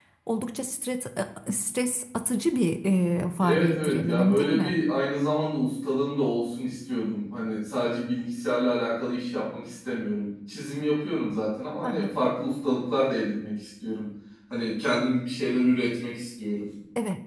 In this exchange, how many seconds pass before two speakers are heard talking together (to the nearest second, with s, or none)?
3 s